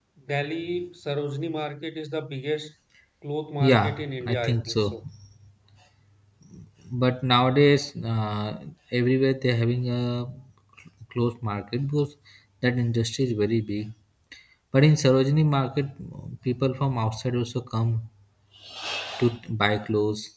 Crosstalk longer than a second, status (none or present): present